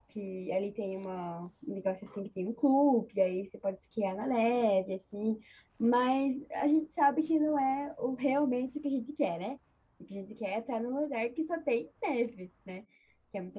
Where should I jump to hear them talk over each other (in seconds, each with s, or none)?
none